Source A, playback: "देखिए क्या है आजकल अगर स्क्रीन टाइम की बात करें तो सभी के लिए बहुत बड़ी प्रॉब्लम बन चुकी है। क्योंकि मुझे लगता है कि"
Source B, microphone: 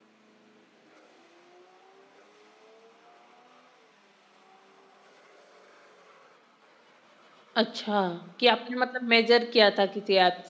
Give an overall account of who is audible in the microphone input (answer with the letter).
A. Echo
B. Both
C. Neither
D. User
D